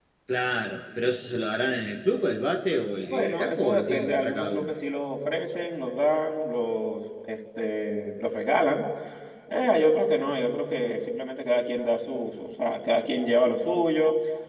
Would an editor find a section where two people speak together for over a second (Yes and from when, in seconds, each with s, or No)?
Yes, from 3.1 s